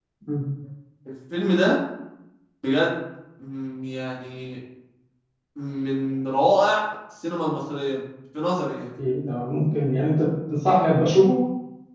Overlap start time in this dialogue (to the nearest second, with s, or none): none